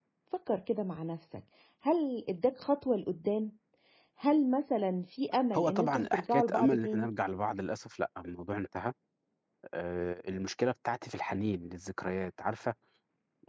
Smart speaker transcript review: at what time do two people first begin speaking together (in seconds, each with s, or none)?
5.5 s